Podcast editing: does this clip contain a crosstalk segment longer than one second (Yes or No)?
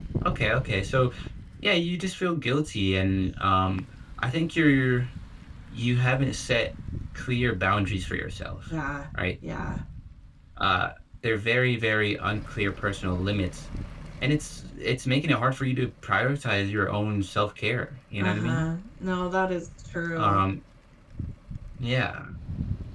No